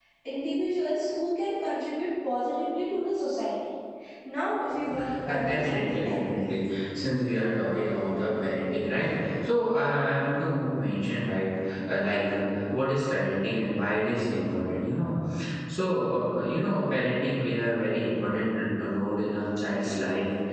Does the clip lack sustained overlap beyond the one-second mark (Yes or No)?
No